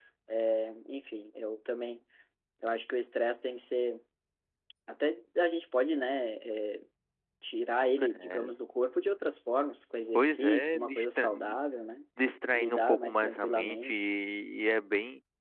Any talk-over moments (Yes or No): Yes